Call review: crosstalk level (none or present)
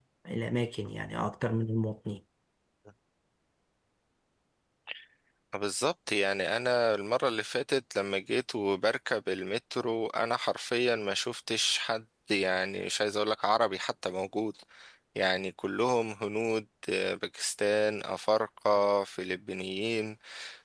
none